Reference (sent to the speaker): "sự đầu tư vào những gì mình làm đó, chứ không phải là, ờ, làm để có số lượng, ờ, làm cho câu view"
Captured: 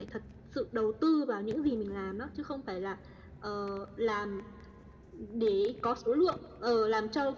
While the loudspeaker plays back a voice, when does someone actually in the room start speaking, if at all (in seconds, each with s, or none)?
none